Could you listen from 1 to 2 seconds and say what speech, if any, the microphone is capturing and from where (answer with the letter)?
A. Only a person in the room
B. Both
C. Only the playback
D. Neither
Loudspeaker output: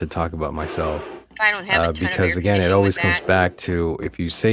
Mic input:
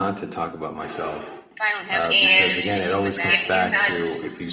C